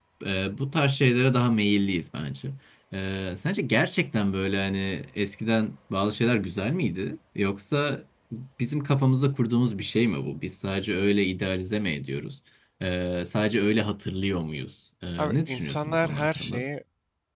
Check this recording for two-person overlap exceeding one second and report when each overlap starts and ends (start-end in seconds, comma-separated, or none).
15.2-16.7